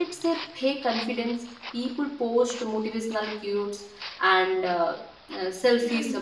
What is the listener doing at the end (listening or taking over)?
listening